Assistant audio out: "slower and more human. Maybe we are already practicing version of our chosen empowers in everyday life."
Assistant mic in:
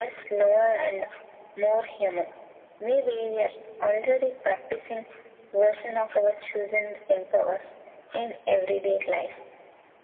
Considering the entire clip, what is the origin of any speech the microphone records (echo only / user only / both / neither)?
echo only